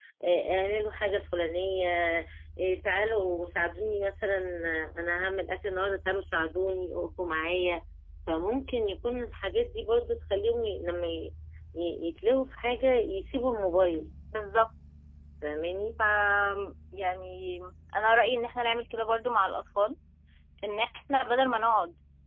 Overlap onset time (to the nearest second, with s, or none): none